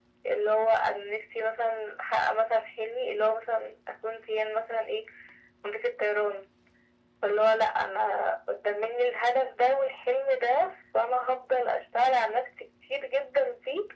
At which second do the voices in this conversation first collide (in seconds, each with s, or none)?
none